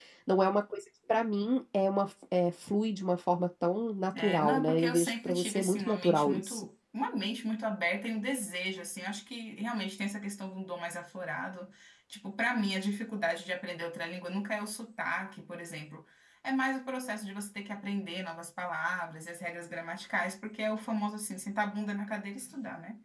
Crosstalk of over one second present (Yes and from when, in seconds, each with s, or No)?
Yes, from 4.1 s